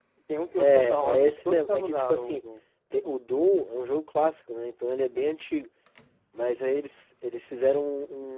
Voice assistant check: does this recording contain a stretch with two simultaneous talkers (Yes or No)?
Yes